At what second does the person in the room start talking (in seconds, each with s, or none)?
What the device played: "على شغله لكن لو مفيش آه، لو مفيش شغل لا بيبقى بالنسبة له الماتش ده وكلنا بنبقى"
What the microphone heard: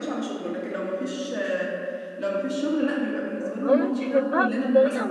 3.4 s